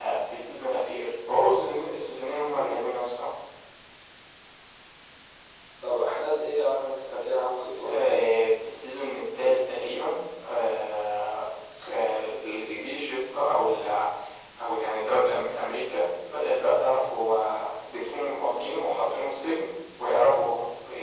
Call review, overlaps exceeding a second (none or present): none